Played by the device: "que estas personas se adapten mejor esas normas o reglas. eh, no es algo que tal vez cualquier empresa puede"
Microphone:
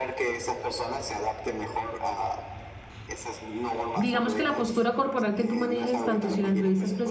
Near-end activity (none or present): present